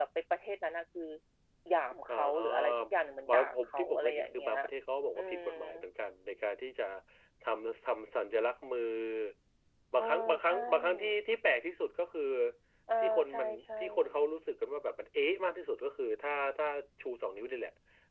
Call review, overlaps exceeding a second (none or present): present